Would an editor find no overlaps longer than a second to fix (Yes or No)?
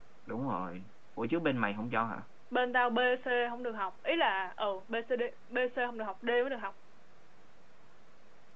Yes